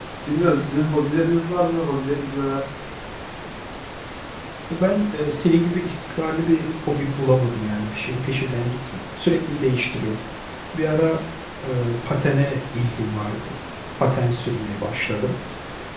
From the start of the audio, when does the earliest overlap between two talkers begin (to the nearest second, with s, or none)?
none